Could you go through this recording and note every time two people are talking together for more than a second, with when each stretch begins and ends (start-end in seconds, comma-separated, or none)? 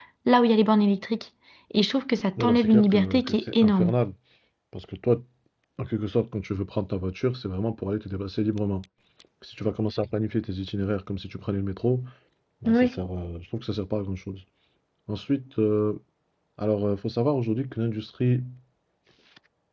2.4-3.9